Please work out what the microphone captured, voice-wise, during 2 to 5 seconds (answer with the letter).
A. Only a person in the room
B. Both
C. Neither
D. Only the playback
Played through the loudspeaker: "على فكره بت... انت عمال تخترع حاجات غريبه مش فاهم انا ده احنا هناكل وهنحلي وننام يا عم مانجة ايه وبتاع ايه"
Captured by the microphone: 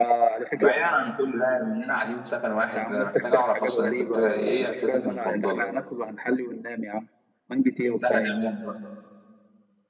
B